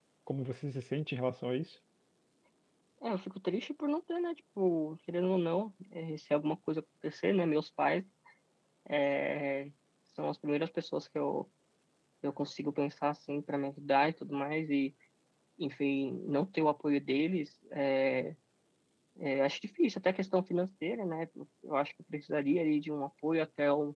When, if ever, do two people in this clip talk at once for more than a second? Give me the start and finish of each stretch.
none

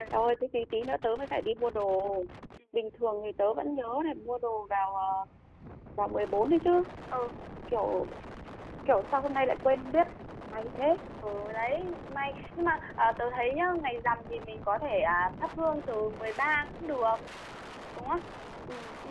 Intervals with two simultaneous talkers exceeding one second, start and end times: none

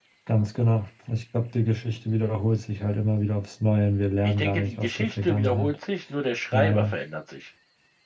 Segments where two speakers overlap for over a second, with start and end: 4.2-5.7

